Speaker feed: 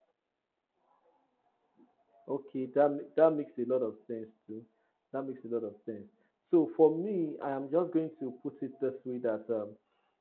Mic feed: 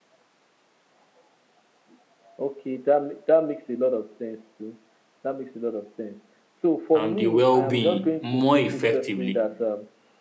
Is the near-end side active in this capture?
Yes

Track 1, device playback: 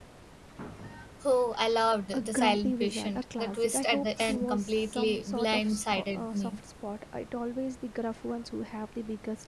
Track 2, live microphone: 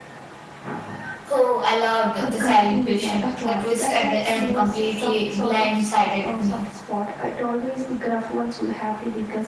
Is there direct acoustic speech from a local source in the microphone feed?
No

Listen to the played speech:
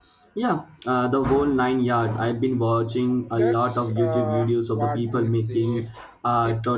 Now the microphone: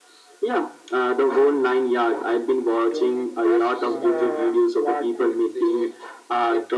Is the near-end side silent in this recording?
No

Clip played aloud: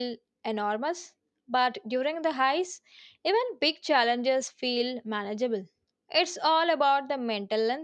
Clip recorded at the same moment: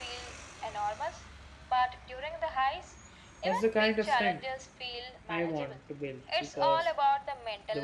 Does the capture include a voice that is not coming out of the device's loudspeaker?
Yes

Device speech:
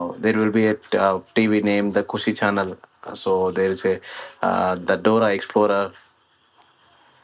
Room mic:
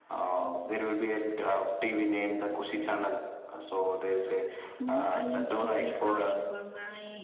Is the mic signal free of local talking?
No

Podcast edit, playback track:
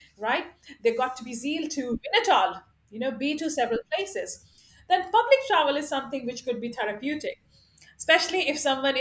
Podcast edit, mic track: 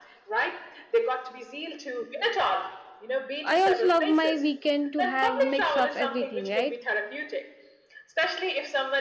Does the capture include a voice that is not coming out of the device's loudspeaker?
Yes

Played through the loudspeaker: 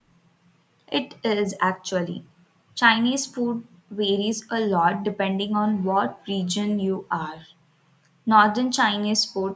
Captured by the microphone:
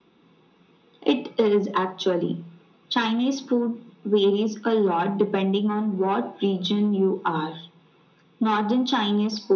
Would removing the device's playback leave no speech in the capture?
Yes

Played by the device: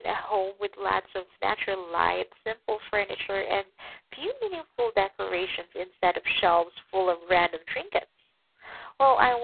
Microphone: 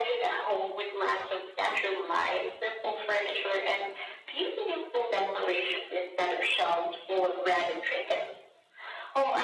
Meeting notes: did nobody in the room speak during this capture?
Yes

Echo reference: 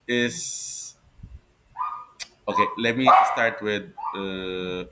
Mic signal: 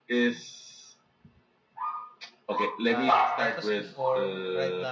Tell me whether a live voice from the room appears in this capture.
Yes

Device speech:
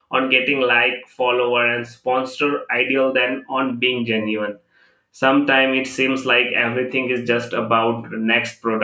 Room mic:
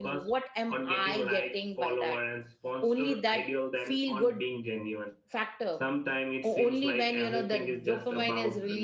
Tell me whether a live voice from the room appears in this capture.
Yes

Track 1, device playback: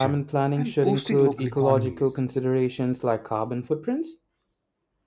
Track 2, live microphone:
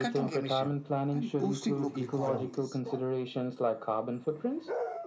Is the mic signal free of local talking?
Yes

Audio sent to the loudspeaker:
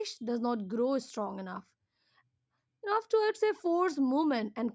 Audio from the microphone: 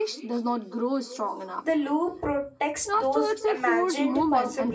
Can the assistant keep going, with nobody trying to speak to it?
No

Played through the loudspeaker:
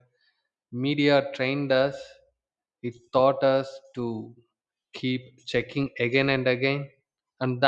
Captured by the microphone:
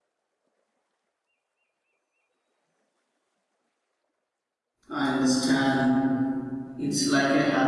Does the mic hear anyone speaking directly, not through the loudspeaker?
Yes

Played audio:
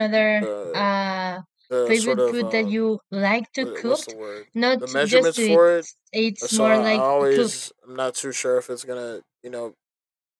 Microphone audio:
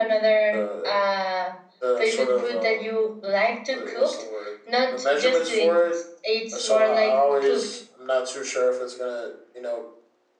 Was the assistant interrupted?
No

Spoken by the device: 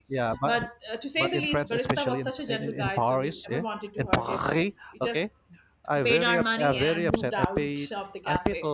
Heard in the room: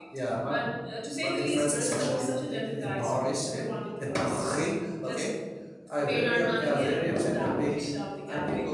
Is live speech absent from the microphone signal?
Yes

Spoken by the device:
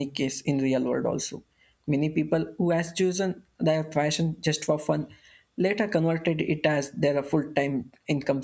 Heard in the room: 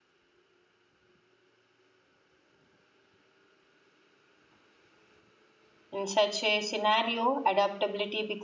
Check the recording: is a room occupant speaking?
Yes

